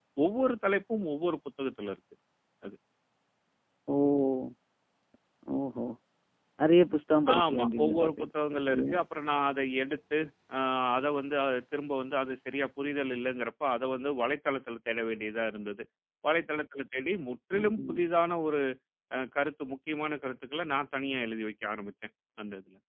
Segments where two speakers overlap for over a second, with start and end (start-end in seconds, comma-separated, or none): 7.4-9.0